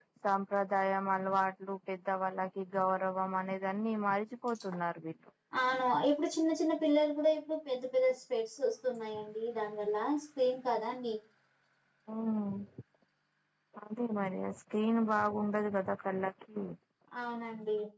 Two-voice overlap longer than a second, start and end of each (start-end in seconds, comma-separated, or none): none